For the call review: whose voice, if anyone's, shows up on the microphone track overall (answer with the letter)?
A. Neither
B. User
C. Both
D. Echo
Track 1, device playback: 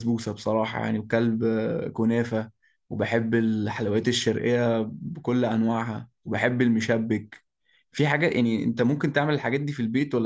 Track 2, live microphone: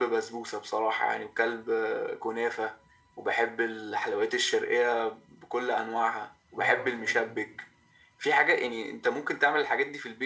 C